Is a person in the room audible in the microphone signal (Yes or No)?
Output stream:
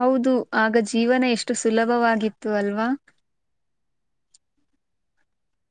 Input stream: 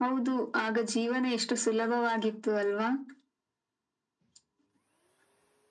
No